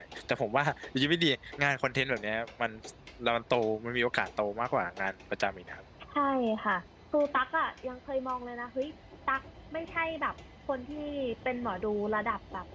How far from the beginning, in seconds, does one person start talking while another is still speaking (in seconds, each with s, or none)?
none